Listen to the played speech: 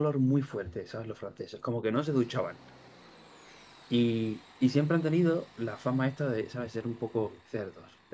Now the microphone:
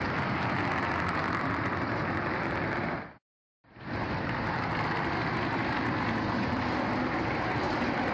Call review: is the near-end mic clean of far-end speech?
Yes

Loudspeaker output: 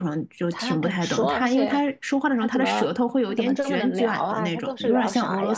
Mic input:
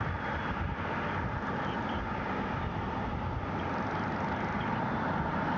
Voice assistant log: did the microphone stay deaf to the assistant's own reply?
Yes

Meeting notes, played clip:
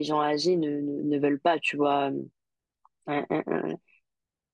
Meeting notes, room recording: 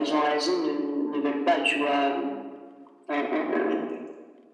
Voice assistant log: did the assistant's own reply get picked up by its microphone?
Yes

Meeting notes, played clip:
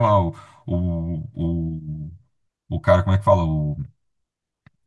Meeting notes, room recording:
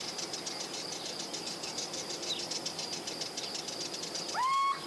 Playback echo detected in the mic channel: No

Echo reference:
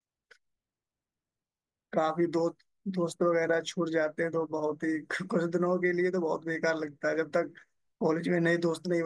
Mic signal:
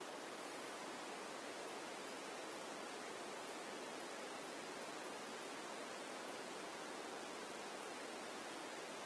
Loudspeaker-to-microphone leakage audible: No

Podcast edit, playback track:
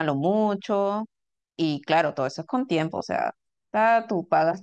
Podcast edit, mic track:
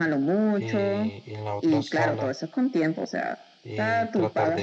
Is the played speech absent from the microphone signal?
No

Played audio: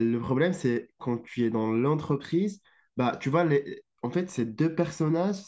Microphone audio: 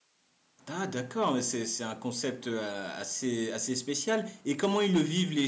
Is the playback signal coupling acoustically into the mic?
No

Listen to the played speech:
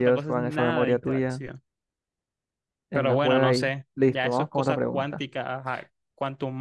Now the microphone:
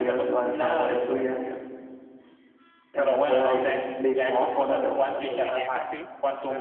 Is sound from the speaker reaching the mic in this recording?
Yes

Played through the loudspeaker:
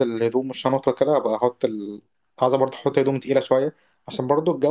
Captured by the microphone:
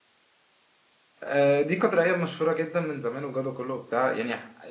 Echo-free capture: Yes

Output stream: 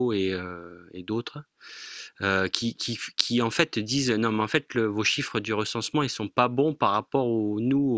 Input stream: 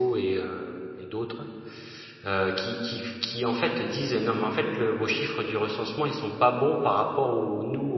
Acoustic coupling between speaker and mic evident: Yes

